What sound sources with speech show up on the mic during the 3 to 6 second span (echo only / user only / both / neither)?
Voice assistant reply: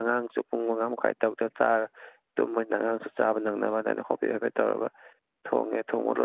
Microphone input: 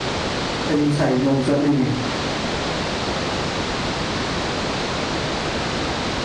neither